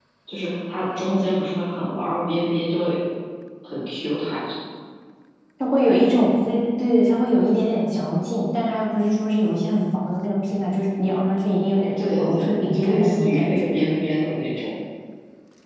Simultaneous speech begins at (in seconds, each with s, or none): 12.0 s